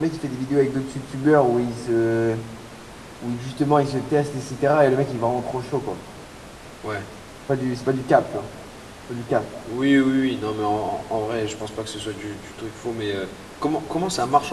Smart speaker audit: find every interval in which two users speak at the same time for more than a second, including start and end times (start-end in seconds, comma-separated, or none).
none